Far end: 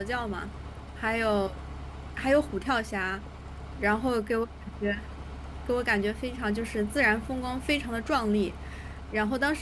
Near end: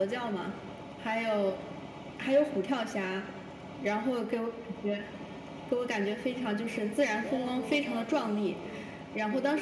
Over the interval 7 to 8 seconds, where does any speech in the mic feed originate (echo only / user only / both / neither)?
both